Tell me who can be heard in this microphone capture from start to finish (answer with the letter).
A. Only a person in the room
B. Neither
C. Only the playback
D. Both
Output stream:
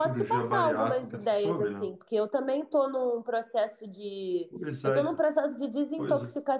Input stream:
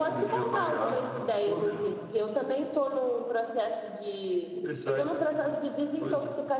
C